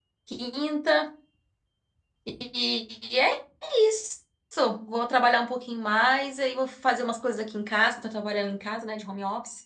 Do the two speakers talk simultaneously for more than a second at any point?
No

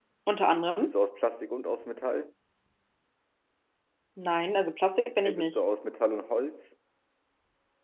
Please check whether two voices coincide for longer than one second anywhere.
No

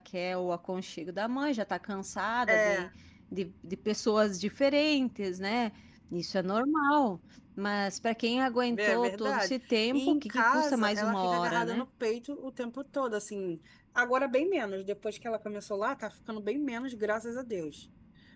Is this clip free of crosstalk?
No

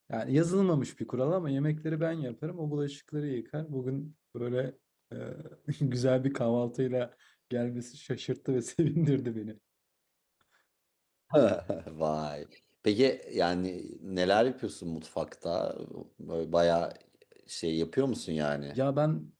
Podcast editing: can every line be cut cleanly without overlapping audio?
Yes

